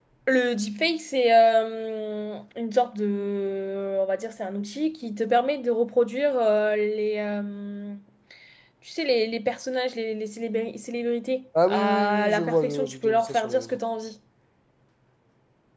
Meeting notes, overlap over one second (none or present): present